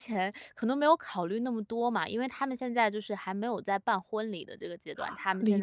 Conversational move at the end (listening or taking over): listening